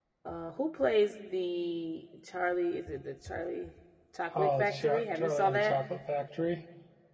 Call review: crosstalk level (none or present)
present